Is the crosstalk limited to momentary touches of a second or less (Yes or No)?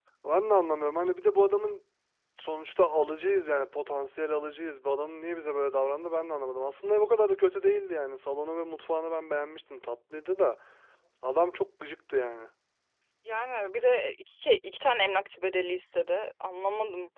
Yes